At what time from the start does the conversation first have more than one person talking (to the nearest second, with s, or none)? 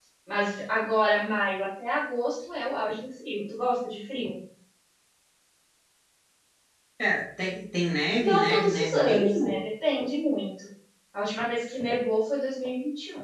8 s